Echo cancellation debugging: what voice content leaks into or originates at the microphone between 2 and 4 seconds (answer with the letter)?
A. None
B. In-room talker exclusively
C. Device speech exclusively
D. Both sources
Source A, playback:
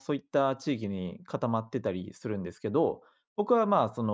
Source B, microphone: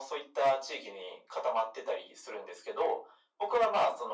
C